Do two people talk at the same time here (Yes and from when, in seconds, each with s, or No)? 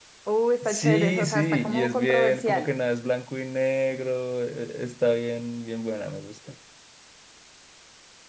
Yes, from 0.6 s